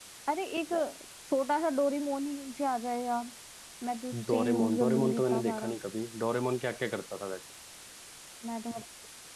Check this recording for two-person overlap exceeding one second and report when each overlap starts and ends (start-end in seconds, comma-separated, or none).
4.3-5.8